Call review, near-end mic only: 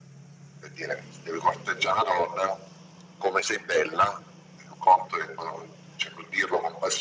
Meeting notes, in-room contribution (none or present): none